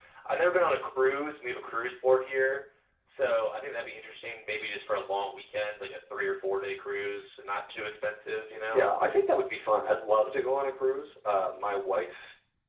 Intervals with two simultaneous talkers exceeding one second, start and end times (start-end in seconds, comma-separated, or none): none